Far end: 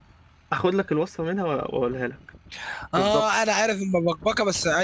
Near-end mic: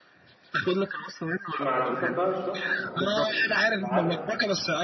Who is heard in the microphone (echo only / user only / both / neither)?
both